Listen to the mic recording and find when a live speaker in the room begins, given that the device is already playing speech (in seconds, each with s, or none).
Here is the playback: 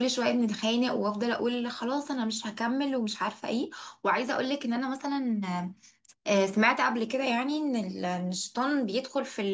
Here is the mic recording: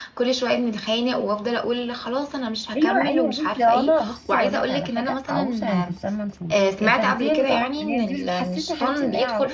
2.7 s